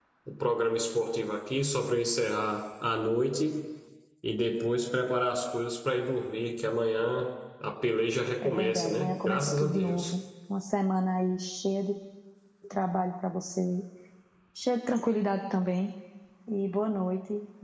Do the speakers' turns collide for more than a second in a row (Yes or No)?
Yes